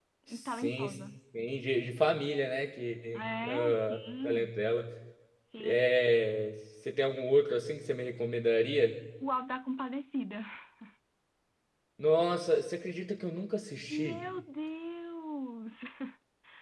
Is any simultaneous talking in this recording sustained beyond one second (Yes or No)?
Yes